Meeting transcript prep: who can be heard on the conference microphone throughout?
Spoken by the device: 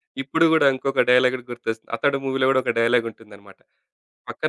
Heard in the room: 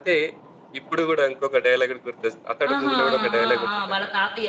both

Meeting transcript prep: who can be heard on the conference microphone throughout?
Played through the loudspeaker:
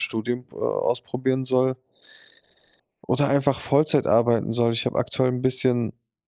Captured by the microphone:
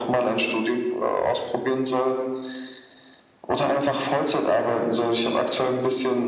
echo only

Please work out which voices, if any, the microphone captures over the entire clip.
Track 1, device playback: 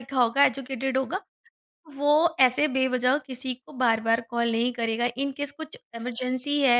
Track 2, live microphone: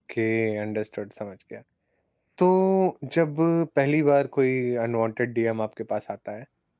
user only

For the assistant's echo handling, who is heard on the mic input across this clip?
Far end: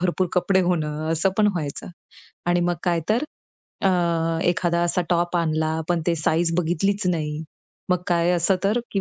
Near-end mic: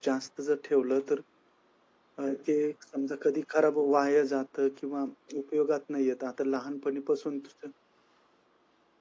user only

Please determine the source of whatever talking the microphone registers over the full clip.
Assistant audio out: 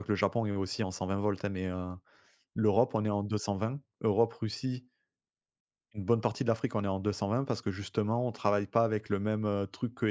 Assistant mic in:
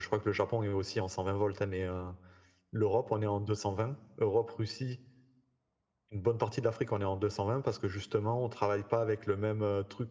echo only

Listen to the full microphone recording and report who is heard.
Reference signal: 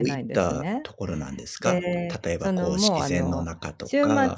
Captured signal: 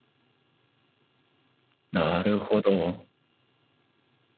user only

